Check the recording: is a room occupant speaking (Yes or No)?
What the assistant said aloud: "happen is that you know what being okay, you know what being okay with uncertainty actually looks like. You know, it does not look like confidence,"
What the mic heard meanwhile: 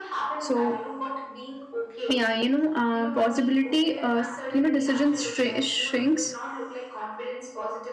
Yes